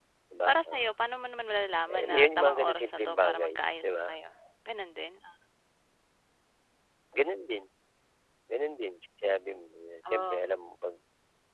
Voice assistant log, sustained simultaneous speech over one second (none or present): present